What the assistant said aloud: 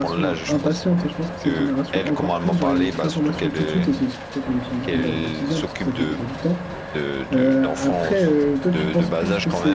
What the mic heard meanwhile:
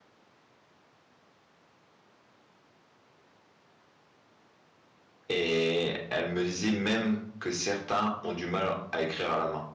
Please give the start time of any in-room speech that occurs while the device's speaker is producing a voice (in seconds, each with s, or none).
5.3 s